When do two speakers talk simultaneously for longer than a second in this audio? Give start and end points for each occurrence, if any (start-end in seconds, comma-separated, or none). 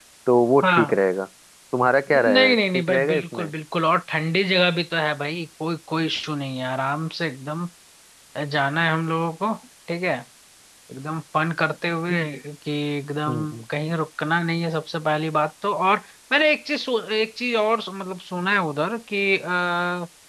2.2-3.5